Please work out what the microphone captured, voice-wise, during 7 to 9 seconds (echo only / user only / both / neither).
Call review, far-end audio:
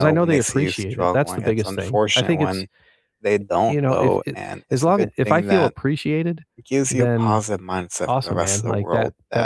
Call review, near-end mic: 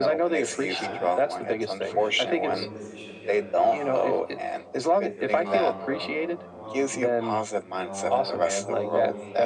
both